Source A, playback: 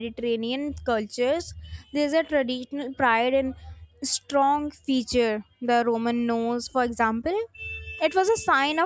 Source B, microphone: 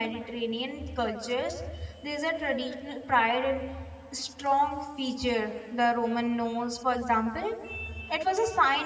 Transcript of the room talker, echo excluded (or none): none